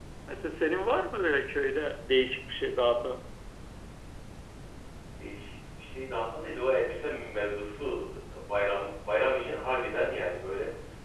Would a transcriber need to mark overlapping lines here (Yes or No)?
No